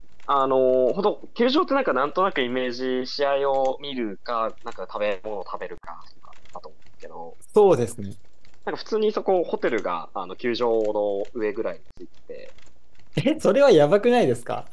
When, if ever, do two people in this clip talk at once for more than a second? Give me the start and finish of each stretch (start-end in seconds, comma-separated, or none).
none